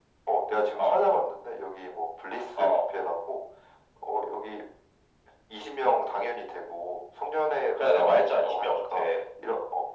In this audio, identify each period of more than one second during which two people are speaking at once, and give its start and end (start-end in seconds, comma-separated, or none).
7.8-9.1